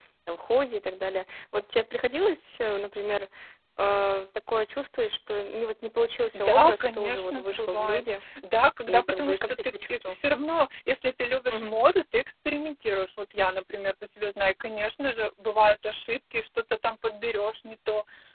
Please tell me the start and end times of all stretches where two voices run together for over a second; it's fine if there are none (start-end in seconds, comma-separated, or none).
6.3-8.0, 8.9-10.2